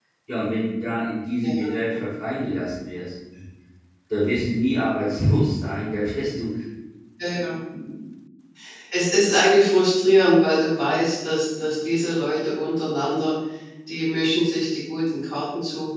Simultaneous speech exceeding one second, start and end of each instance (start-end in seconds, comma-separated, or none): none